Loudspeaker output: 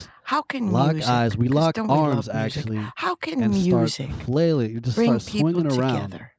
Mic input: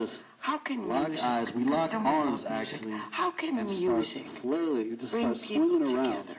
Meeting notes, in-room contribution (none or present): none